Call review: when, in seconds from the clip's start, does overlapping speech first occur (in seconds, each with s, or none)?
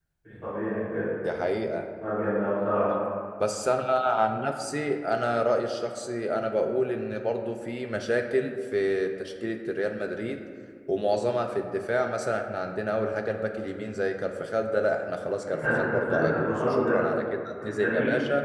15.5 s